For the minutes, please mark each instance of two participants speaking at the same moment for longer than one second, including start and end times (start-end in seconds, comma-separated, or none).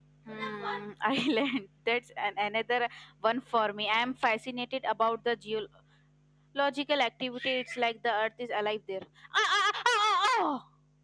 none